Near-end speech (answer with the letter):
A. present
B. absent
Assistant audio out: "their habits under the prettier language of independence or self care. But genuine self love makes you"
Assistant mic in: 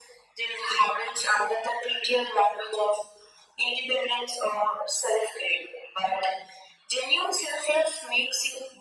B